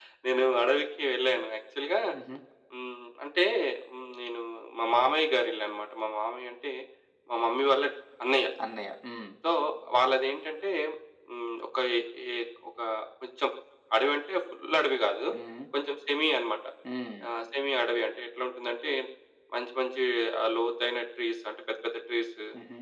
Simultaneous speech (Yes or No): No